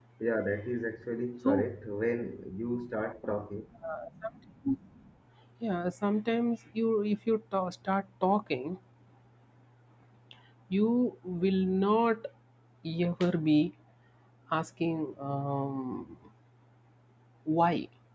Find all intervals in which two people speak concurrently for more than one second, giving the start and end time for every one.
none

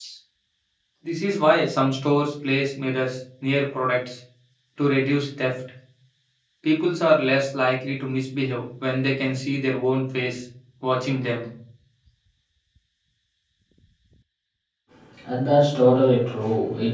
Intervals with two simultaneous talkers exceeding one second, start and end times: none

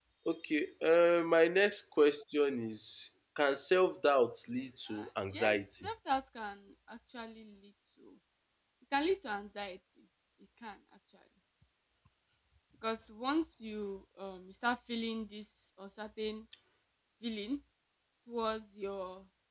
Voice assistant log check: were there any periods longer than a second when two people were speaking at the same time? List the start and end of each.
4.5-5.9

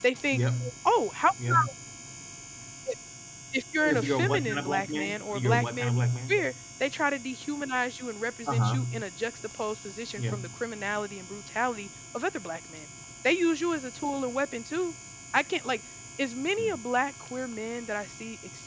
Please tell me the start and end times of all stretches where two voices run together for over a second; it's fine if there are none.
3.8-6.3

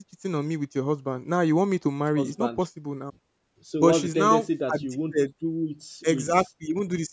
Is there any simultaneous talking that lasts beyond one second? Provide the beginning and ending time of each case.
3.8-5.2

